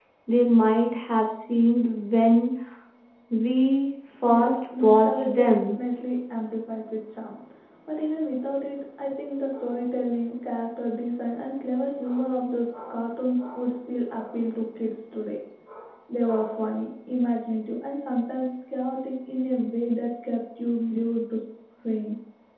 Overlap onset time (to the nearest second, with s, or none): 4 s